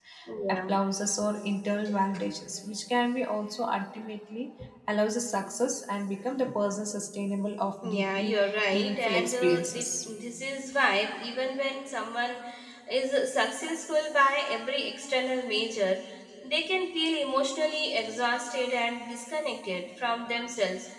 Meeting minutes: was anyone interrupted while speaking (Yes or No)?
Yes